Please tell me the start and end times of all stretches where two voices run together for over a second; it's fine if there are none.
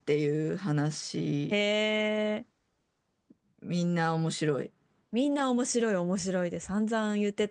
none

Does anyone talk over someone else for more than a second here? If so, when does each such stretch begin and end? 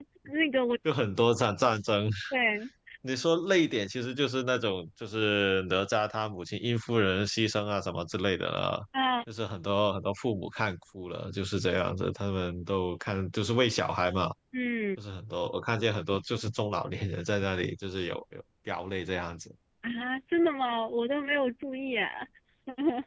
none

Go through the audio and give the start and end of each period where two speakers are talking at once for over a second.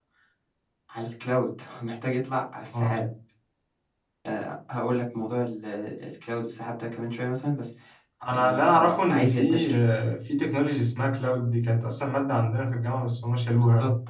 8.3-9.7

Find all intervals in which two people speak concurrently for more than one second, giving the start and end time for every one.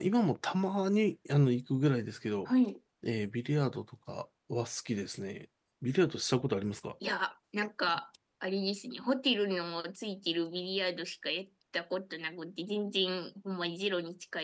none

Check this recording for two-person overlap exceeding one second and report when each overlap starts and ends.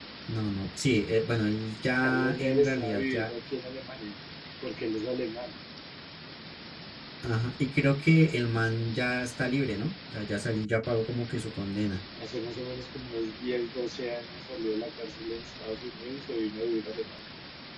2.0-3.3

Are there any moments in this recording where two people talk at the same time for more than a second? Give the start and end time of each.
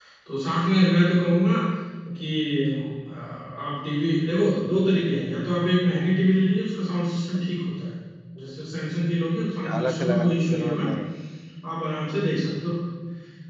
9.7-10.9

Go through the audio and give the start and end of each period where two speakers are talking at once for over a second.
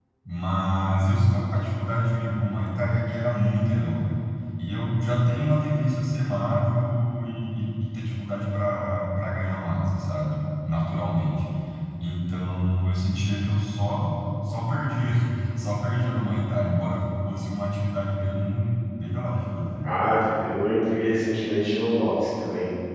none

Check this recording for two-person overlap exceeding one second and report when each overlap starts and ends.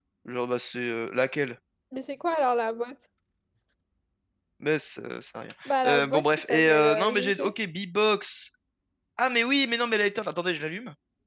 5.6-7.5

